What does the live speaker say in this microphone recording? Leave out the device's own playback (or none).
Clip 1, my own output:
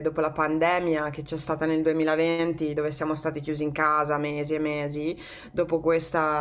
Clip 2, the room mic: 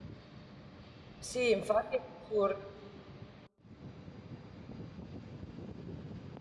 sì, infatti è assurdo.